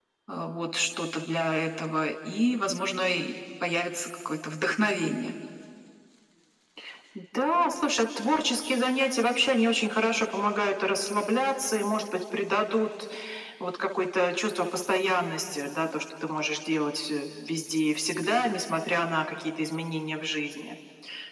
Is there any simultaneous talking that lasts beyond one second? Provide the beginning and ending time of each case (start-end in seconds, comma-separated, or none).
none